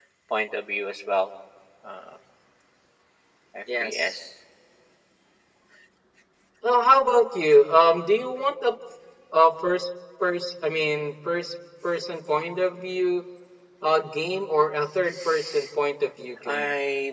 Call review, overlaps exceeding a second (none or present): none